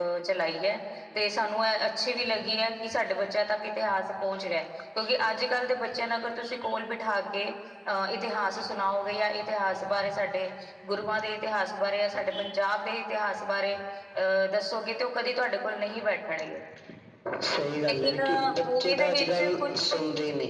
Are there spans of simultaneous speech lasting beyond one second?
Yes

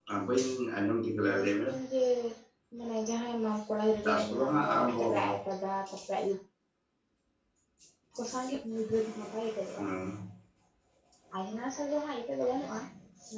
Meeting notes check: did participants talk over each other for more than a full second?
Yes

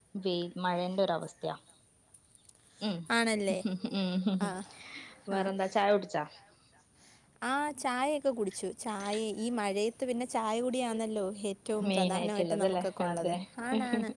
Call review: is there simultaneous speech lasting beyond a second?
Yes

